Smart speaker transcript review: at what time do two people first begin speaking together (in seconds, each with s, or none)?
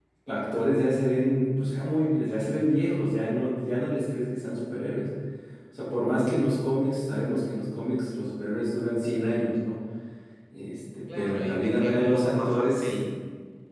11.2 s